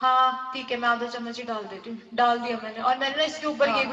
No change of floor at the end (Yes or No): Yes